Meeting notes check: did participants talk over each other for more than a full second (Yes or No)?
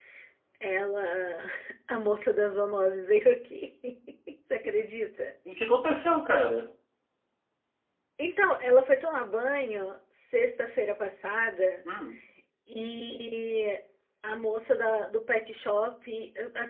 No